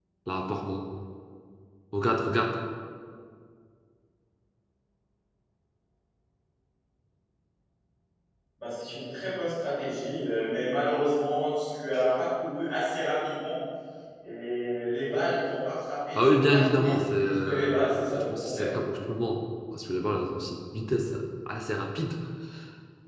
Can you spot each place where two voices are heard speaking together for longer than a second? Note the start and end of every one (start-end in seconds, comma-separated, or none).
16.4-18.7